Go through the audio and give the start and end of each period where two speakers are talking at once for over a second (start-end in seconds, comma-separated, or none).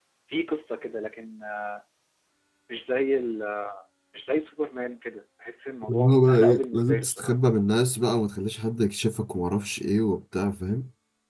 5.9-7.3